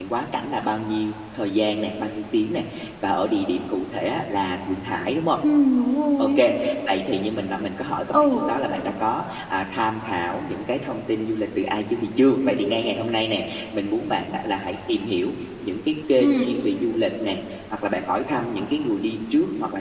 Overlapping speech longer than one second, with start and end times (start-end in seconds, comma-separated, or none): none